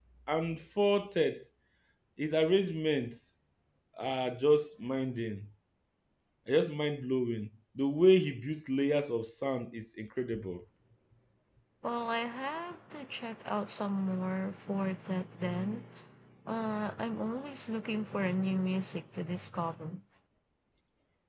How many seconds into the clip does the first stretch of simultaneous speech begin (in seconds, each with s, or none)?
none